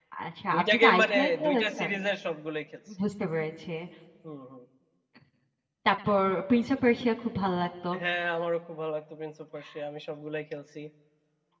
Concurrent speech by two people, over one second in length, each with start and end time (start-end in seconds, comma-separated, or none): 0.5-1.9